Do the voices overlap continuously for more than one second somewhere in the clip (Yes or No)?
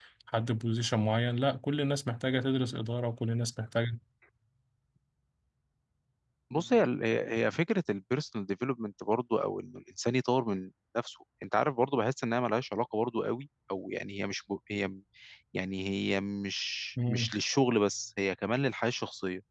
No